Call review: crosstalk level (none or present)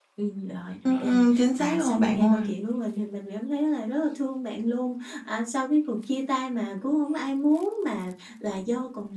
present